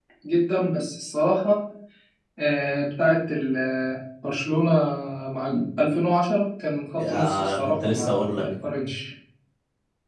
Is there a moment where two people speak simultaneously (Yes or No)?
Yes